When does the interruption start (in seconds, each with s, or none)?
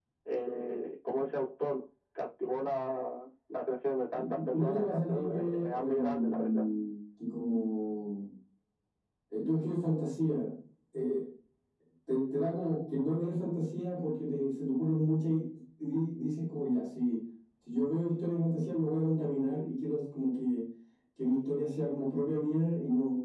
4.2 s